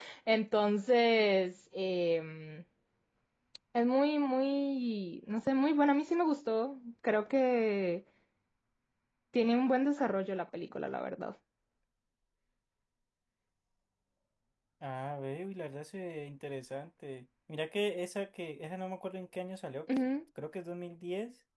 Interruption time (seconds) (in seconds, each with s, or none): none